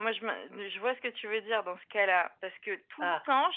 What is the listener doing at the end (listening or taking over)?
listening